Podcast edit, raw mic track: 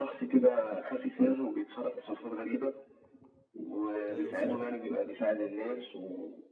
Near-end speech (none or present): present